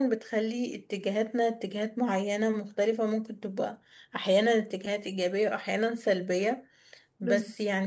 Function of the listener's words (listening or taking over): listening